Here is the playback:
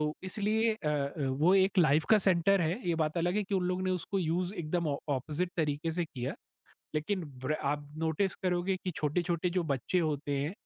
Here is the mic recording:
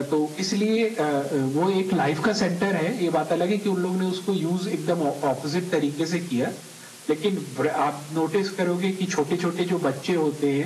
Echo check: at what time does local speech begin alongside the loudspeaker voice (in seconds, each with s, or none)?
none